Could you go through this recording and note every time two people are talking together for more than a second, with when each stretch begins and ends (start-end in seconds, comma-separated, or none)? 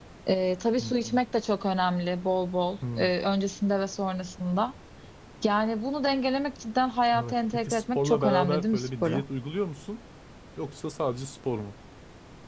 7.2-9.2